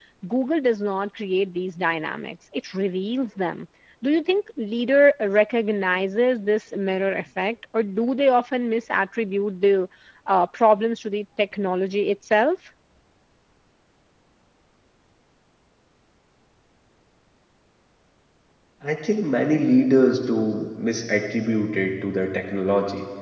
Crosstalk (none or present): none